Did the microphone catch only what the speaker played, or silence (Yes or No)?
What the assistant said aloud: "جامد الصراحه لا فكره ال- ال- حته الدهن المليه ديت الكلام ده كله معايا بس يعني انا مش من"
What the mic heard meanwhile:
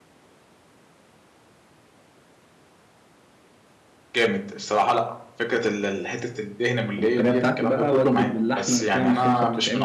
No